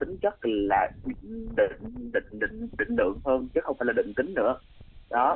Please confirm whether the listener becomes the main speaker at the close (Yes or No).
Yes